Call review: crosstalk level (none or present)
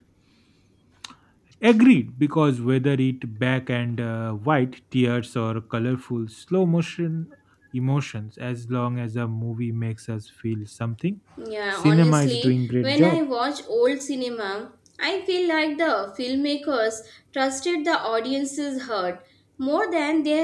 present